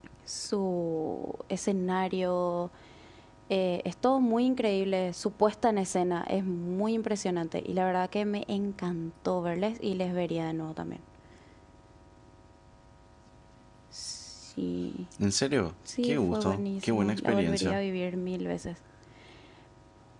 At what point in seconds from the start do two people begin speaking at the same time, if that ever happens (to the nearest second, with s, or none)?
16 s